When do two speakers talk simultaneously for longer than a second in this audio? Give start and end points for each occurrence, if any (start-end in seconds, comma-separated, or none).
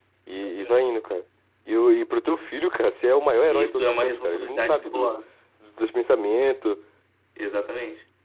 3.5-5.1